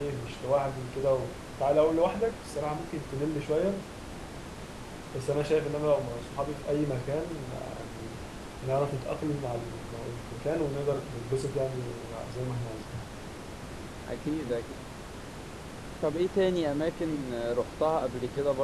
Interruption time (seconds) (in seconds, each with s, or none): none